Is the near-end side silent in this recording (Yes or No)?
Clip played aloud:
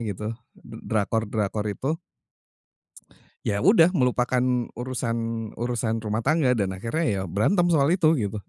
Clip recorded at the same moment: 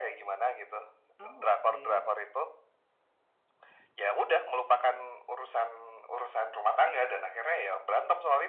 No